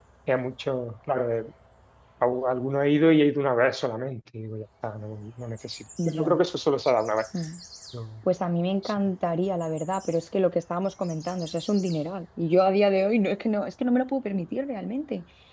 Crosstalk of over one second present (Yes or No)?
No